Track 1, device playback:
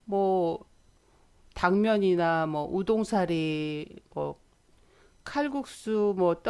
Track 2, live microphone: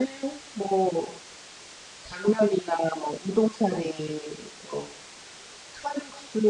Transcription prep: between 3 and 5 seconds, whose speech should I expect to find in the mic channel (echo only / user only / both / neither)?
echo only